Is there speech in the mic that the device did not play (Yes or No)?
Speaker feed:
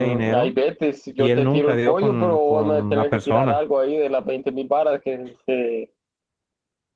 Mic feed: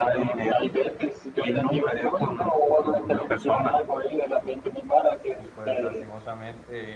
Yes